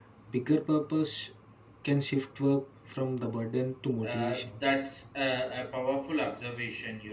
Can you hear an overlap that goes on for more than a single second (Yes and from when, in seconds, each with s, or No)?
No